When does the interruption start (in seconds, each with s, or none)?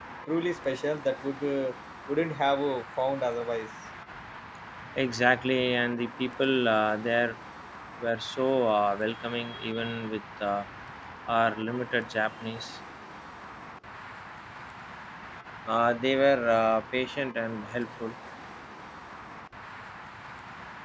none